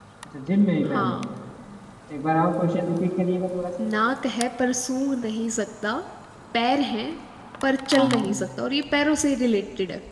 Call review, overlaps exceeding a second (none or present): none